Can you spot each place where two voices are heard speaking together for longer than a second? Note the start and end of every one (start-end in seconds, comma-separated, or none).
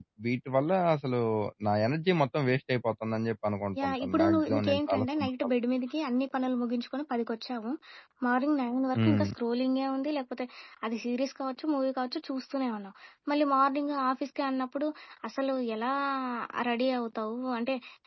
3.8-5.5